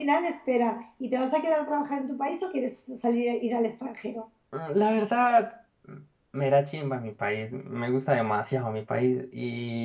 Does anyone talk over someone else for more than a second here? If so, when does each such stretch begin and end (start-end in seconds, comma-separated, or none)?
none